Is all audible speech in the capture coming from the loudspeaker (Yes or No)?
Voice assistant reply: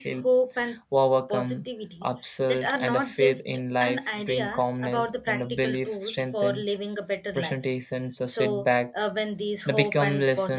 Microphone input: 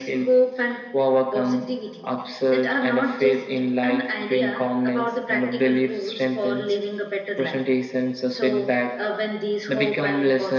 Yes